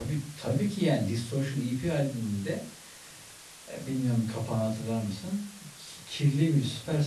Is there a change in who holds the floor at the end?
No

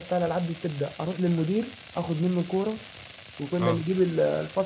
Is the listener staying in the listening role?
Yes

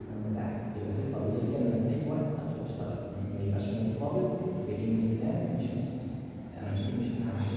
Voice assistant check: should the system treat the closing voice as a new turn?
No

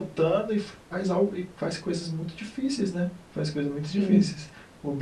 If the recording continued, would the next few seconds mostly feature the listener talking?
No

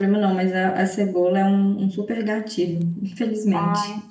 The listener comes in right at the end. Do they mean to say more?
Yes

